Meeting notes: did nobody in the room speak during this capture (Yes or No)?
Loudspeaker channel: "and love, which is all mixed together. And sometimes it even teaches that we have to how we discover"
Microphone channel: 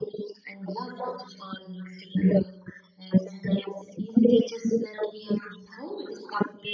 Yes